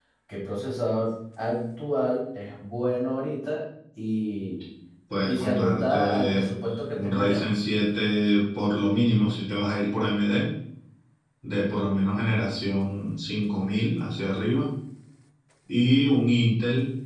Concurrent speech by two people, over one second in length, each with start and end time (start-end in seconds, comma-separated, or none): 5.3-6.5